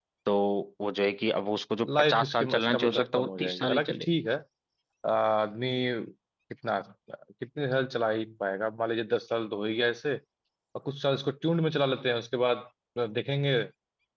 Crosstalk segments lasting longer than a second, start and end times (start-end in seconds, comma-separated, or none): 2.0-4.1